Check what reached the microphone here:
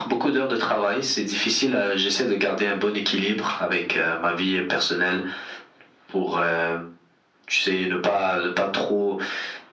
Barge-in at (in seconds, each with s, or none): none